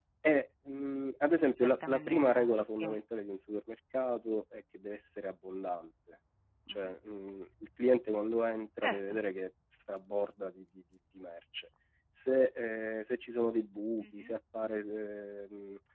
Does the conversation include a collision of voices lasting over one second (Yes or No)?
Yes